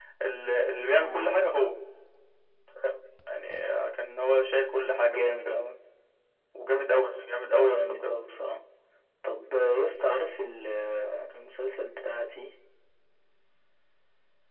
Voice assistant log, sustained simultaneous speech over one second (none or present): none